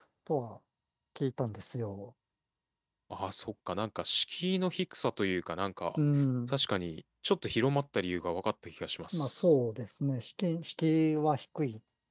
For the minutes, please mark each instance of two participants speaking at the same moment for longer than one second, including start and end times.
none

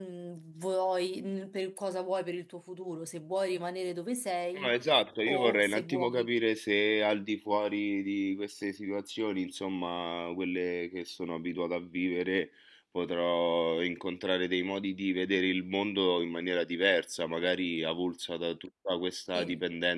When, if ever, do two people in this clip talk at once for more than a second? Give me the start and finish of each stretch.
5.2-6.4

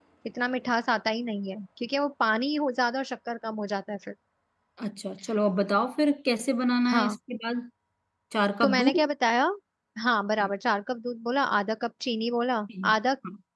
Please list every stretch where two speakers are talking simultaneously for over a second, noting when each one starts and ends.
none

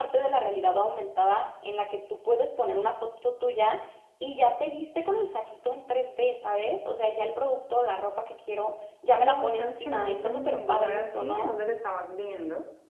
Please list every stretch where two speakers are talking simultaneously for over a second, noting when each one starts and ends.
9.1-11.5

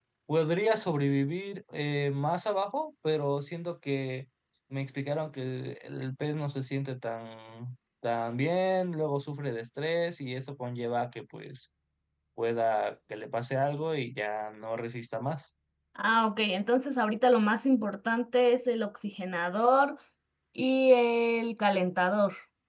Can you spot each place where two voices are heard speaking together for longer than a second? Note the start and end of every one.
none

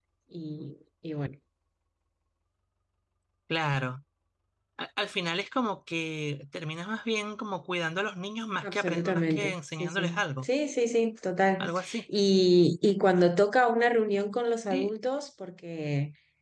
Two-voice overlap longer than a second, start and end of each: 8.6-10.5

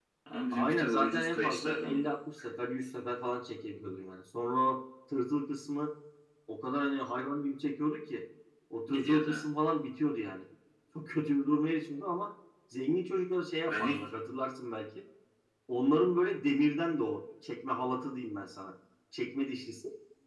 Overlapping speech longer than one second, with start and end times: 0.5-2.1

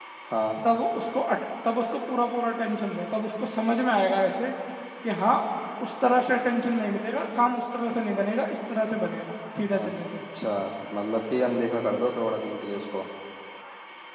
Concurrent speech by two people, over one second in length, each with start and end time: none

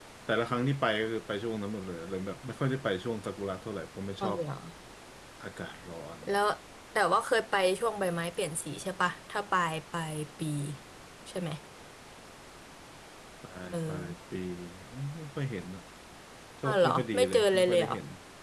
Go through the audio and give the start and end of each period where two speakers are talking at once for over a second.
16.6-17.9

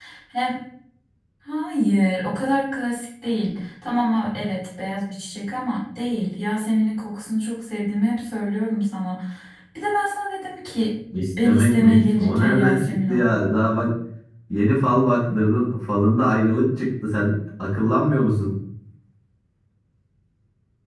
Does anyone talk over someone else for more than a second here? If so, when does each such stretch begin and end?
11.4-13.2

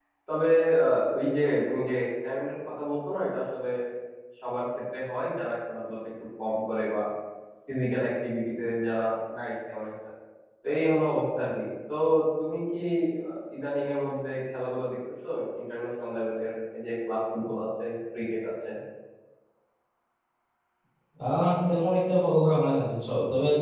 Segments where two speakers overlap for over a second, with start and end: none

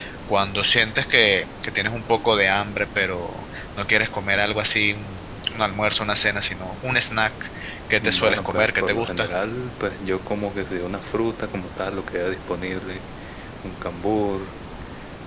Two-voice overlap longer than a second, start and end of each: 8.0-9.3

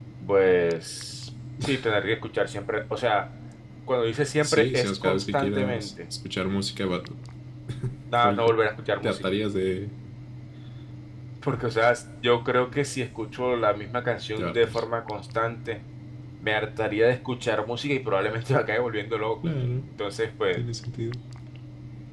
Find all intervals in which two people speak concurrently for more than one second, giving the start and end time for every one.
4.4-5.9

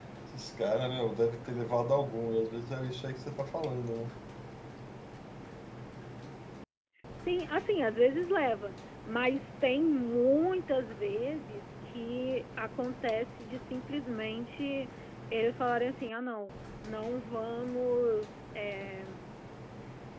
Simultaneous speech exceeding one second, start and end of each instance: none

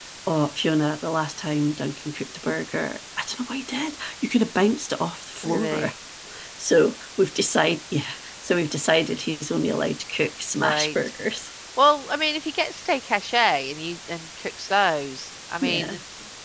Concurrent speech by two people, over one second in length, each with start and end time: none

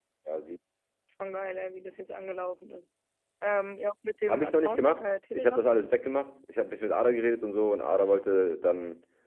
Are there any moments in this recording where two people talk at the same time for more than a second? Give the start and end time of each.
4.3-5.7

